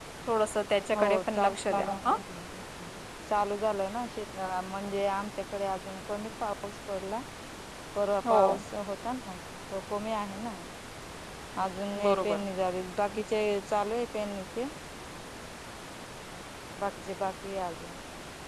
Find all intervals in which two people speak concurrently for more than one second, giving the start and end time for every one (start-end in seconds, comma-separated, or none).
0.9-2.2